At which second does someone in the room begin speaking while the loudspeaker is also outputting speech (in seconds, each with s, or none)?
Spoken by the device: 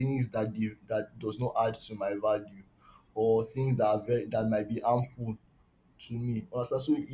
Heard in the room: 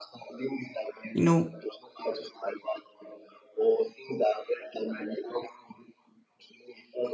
1.1 s